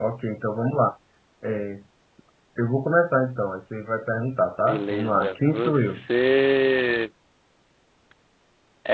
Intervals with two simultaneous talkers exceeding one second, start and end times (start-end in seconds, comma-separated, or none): 4.7-6.0